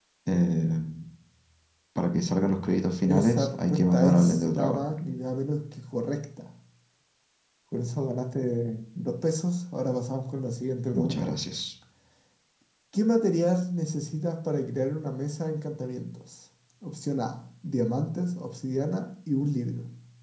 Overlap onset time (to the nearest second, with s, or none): 3 s